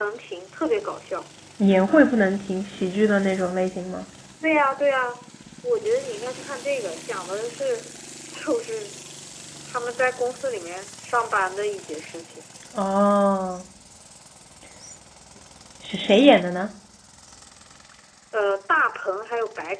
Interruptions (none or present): none